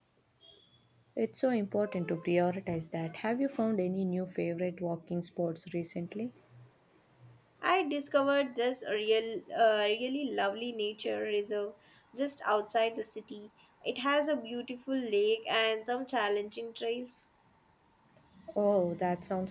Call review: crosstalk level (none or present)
none